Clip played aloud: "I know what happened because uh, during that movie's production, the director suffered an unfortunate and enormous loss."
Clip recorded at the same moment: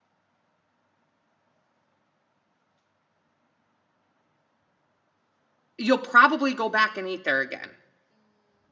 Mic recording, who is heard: user only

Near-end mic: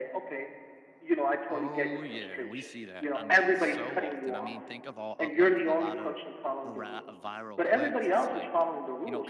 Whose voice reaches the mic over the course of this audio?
both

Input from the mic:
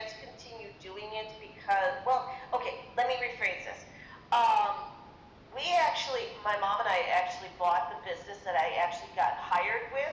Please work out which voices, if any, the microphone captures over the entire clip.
echo only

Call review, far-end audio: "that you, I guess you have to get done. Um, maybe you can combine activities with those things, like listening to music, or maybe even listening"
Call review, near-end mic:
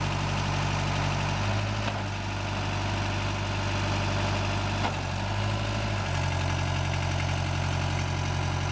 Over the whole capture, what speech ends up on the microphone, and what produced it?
neither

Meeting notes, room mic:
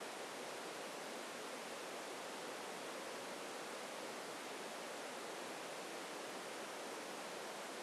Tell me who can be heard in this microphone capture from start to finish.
neither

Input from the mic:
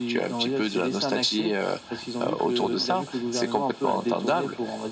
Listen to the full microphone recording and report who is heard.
echo only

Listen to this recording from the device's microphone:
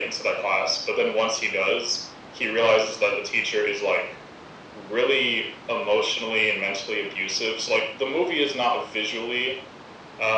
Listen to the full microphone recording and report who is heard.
echo only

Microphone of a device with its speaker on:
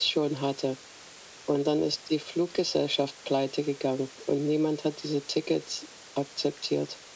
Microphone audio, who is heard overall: echo only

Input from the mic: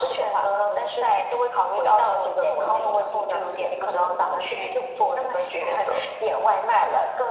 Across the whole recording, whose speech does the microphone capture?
echo only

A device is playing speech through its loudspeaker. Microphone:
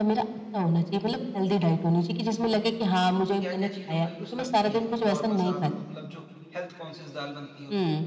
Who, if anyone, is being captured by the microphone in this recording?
both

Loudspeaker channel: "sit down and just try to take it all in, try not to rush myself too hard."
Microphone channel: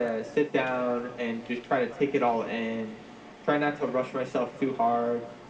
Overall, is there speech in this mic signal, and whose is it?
echo only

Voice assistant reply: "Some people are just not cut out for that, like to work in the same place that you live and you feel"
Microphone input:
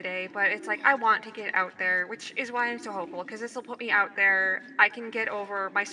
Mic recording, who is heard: user only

